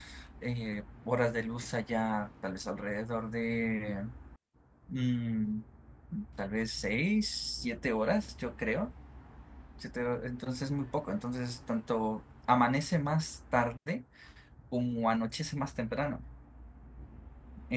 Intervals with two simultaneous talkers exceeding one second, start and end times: none

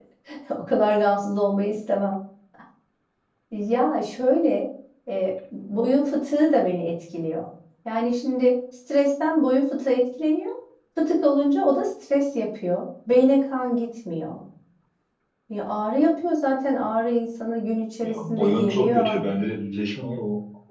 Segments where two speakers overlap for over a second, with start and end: 18.0-19.2

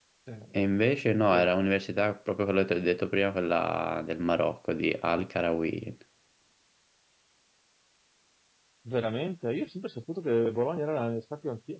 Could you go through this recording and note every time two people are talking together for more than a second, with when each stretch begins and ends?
none

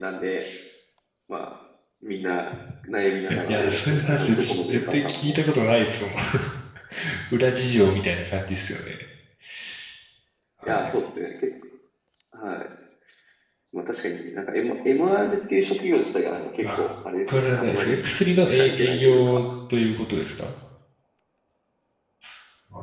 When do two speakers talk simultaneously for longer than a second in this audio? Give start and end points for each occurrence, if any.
3.5-5.4, 17.3-19.5

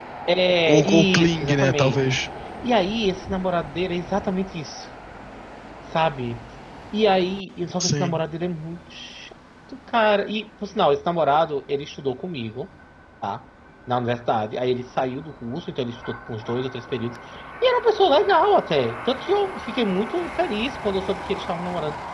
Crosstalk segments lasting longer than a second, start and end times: 0.7-2.0

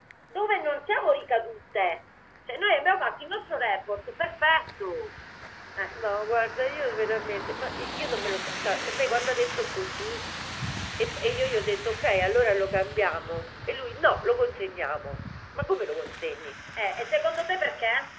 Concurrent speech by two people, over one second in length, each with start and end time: none

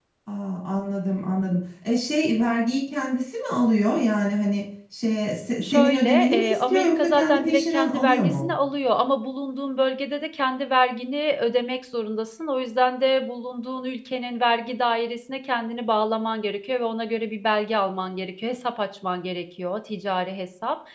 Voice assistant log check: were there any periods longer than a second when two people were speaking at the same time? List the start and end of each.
5.6-8.6

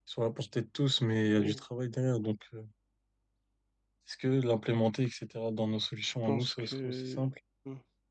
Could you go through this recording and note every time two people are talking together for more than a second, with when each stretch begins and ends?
6.0-7.3

